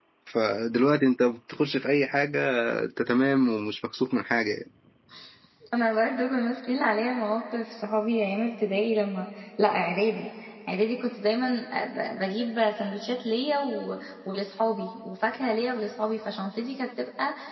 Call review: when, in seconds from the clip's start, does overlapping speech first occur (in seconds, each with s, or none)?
none